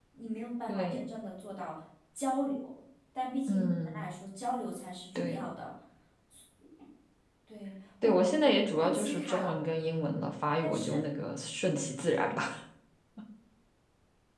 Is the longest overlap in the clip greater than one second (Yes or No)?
Yes